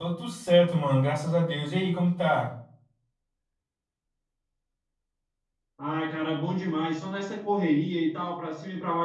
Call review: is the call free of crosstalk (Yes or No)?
Yes